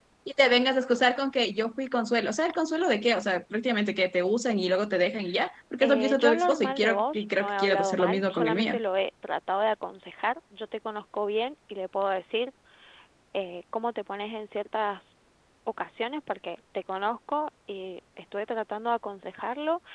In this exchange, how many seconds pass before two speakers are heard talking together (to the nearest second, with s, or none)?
6 s